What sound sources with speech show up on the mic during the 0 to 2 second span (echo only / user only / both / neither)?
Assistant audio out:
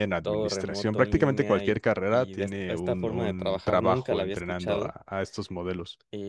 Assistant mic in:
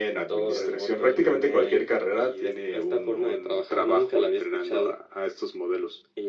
echo only